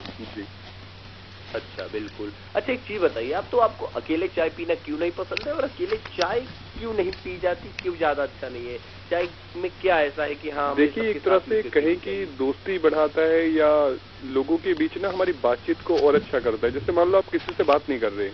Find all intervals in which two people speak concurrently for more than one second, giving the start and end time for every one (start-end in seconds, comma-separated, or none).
10.7-12.4